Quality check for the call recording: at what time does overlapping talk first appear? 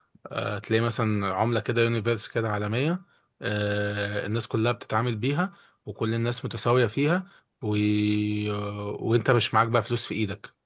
none

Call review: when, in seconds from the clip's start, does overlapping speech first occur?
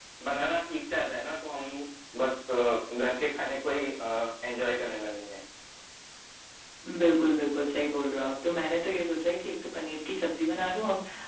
none

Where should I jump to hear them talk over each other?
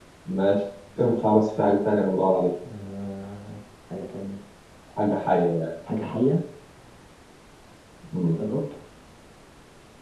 none

